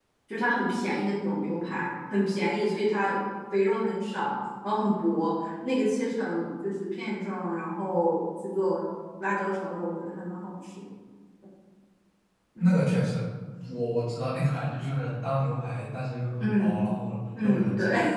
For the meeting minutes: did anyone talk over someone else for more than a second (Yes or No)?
No